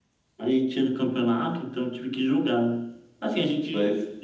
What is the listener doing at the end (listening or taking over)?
listening